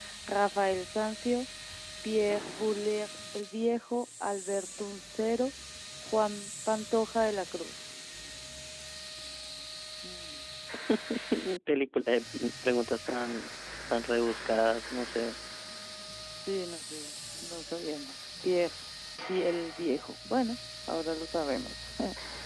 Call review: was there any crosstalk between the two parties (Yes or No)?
No